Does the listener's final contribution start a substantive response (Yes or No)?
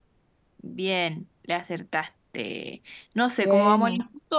No